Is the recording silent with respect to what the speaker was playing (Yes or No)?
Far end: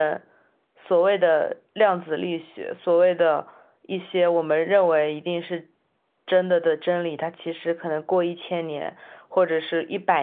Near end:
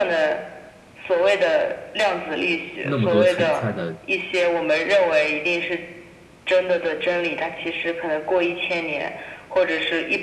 No